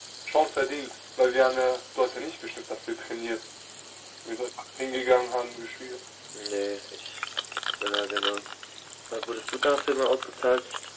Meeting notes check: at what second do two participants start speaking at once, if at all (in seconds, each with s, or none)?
none